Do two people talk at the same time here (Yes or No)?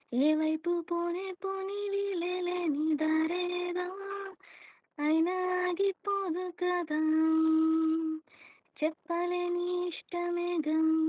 No